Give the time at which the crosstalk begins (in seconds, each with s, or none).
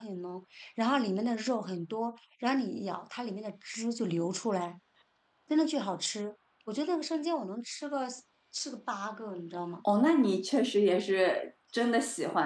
none